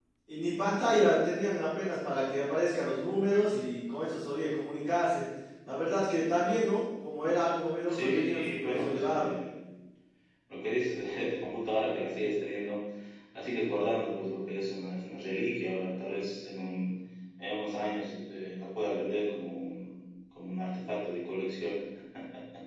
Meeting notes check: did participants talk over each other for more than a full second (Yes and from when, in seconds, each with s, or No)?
Yes, from 7.9 s